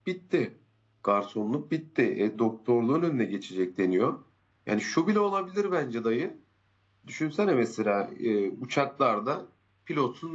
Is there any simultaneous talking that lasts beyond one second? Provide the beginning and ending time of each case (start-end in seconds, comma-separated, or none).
none